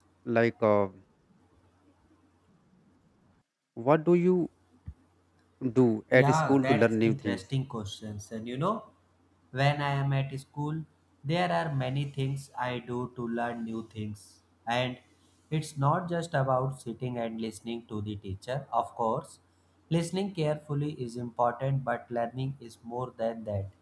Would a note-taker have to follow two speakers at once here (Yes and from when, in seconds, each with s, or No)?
Yes, from 6.1 s